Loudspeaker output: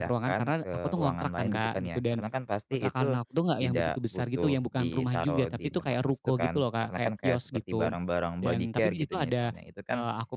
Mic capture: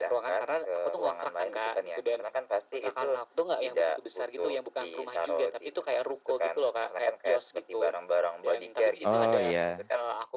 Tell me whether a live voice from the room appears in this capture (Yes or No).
Yes